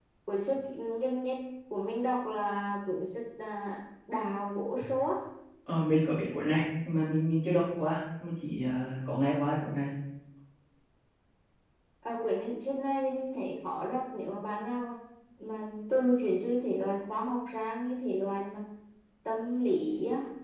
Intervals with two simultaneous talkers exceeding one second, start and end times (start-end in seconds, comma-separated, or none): none